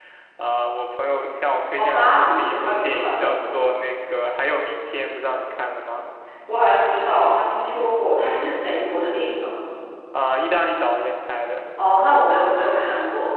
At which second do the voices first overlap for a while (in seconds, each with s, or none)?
1.8 s